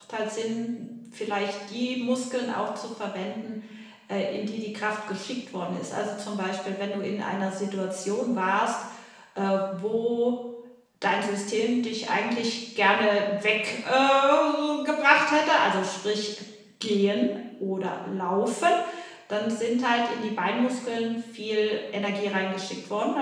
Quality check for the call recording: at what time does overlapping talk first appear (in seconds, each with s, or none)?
none